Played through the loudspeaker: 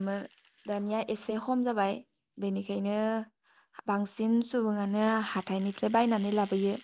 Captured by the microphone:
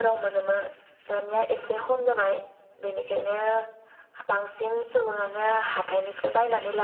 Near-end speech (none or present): none